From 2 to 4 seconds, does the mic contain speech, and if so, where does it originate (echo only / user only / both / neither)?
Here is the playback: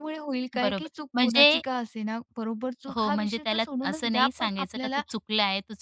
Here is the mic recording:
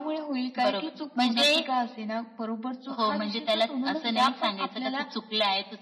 echo only